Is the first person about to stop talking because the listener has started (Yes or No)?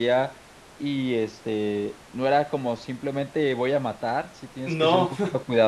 No